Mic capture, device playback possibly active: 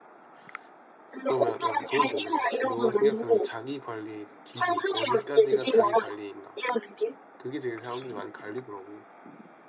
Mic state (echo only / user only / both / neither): both